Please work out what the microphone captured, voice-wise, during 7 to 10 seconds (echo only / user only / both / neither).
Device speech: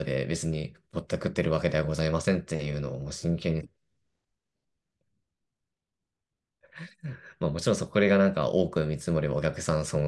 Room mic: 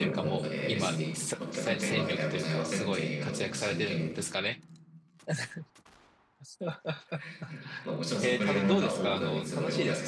both